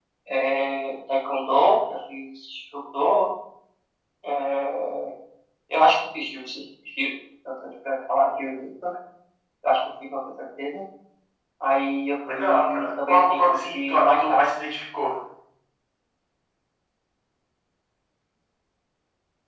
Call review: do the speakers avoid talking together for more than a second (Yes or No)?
No